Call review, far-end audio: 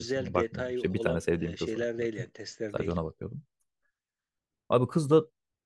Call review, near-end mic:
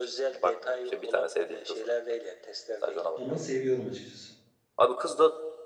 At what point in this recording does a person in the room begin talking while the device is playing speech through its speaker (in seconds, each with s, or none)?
3.2 s